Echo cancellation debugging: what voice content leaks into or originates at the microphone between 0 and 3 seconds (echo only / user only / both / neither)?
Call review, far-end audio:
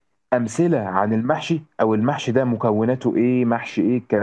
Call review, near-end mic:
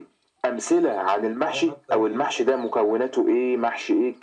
both